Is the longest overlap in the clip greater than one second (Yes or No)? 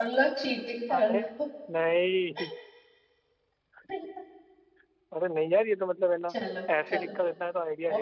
No